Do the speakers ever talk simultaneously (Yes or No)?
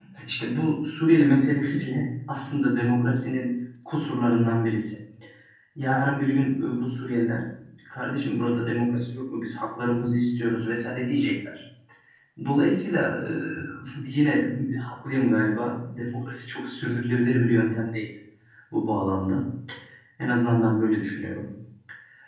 No